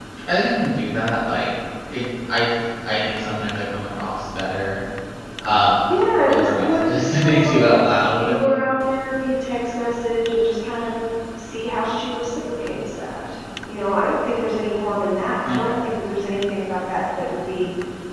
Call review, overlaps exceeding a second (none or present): present